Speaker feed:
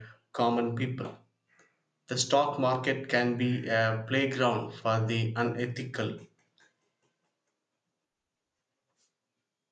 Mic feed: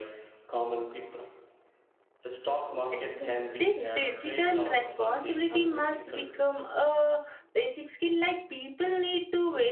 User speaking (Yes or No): Yes